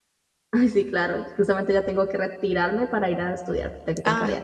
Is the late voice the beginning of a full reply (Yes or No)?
Yes